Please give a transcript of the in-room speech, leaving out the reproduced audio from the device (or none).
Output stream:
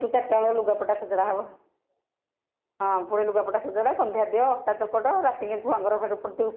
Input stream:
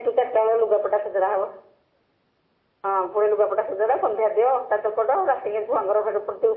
none